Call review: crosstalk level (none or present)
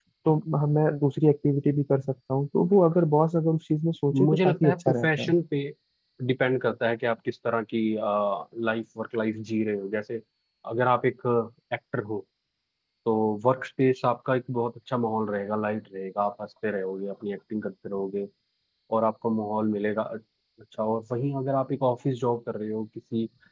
present